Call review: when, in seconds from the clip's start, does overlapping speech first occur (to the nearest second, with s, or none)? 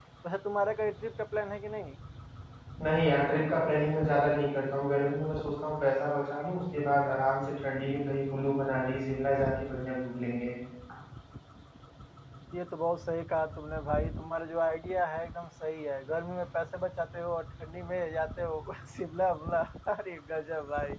none